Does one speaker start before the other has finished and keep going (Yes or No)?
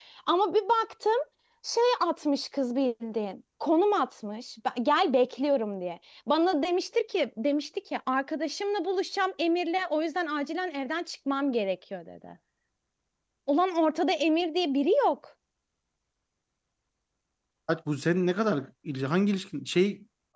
No